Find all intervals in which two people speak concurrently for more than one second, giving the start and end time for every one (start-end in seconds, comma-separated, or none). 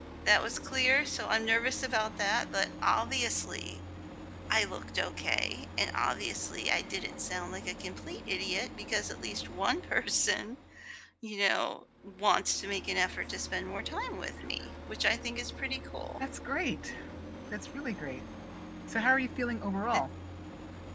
none